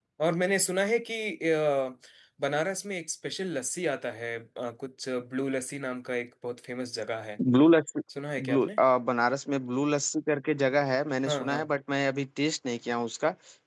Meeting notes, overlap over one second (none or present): none